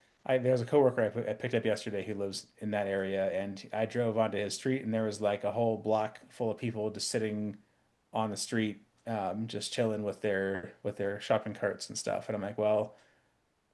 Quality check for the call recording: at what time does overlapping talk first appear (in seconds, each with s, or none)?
none